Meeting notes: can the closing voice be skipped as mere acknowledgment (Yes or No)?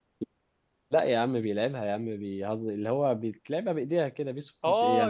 No